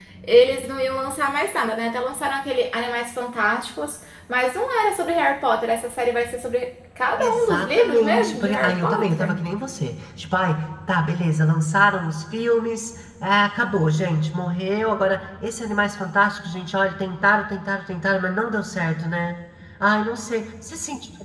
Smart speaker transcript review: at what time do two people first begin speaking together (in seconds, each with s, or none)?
7.2 s